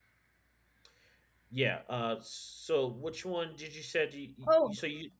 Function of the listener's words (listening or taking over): taking over